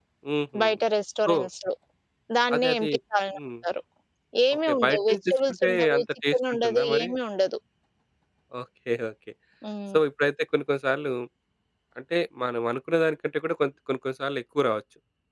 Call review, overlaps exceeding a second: present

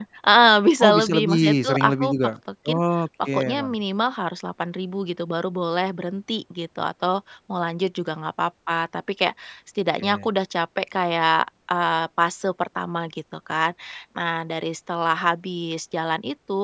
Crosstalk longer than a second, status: present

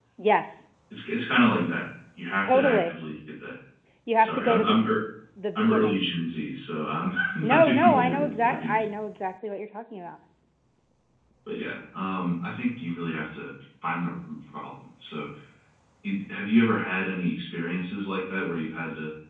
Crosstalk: present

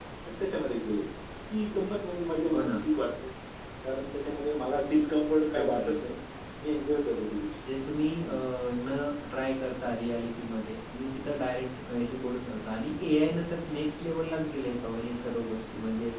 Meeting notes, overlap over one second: none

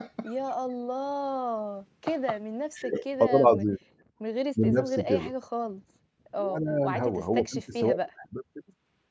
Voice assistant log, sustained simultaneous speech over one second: present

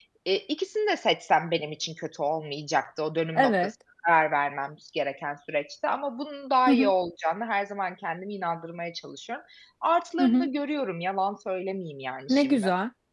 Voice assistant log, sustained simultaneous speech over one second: none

